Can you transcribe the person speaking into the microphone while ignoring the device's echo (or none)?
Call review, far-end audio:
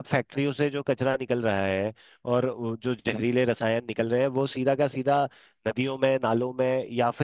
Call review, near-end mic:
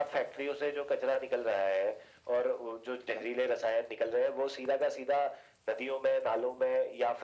none